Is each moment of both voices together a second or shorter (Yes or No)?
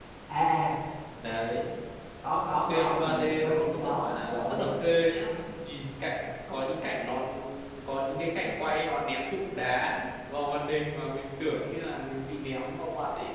No